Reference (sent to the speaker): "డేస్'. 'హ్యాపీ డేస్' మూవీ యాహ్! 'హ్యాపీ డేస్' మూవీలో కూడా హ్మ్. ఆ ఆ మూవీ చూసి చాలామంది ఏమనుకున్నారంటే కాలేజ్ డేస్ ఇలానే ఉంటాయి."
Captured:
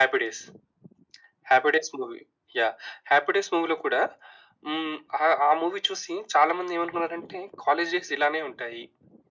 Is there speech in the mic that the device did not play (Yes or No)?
No